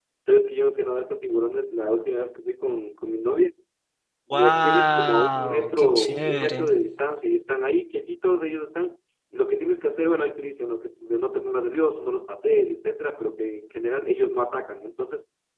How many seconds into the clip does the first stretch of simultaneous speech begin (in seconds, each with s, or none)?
4.3 s